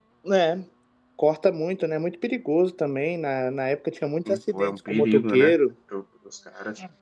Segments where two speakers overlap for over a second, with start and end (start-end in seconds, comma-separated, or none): 4.3-5.5